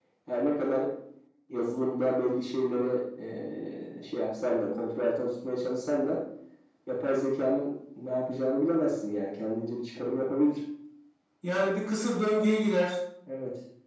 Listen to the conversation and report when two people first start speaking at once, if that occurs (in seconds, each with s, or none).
none